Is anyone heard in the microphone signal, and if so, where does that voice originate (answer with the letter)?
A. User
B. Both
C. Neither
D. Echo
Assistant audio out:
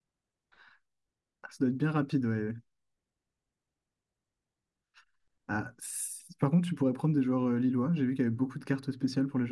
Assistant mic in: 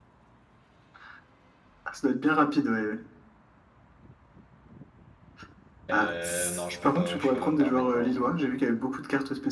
B